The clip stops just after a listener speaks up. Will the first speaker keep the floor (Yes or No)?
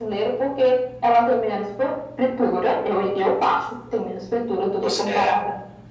Yes